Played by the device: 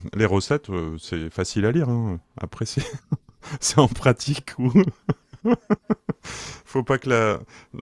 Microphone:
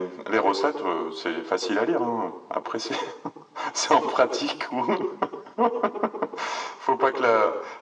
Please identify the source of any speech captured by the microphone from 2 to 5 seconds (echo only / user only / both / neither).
echo only